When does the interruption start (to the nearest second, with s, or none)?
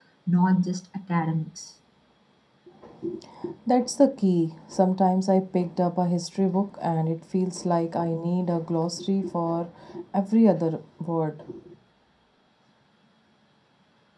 none